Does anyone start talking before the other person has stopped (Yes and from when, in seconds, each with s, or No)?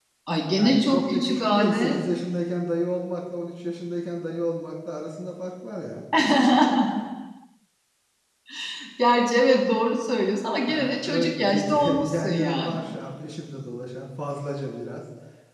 Yes, from 0.5 s